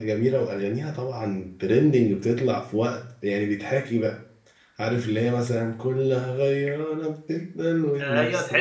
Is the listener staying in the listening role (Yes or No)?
No